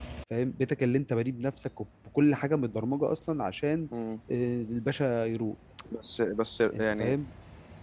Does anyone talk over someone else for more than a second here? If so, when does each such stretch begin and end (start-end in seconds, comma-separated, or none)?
none